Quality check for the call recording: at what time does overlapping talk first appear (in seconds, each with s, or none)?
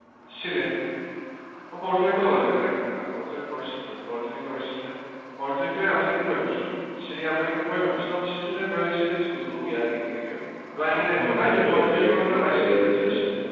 10.9 s